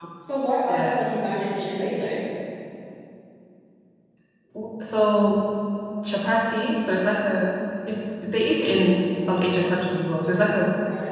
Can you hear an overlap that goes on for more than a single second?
No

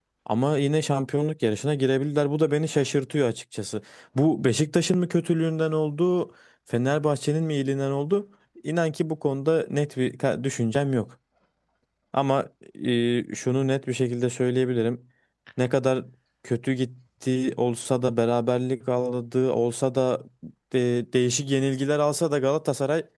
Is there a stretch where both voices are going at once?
No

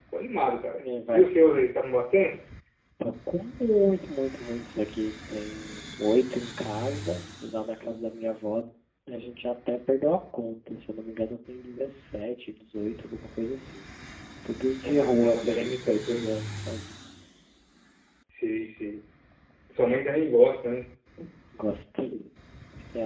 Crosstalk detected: Yes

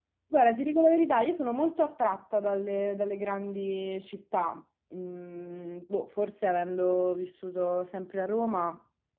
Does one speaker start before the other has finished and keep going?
No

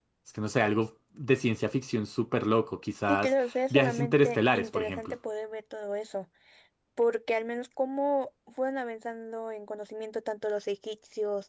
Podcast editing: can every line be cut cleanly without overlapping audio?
No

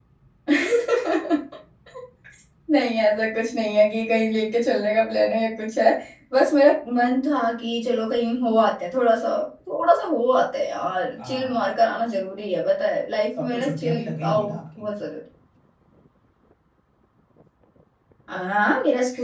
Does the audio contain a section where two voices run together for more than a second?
Yes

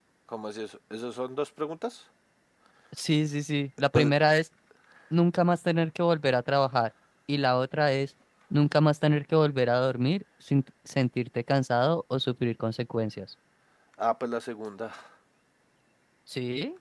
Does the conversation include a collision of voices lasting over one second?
No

